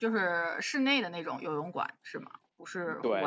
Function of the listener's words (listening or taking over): taking over